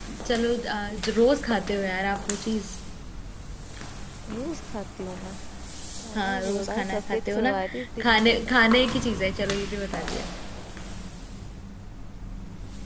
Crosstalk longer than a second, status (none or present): present